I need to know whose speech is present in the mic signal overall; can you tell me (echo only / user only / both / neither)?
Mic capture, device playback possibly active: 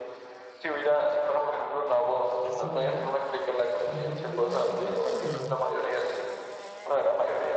both